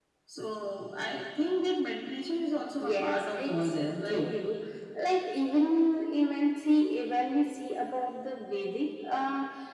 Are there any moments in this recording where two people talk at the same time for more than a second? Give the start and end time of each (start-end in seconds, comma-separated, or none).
2.8-4.3